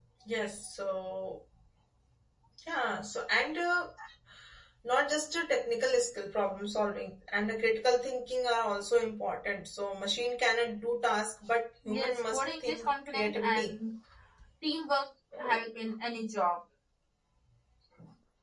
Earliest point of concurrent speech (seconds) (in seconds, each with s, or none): 11.8 s